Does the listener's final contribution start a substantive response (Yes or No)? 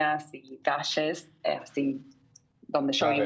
Yes